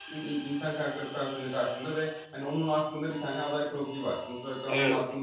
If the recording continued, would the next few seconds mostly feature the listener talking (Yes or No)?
No